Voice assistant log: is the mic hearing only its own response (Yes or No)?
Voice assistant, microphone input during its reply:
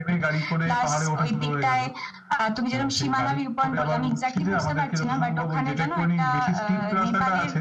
Yes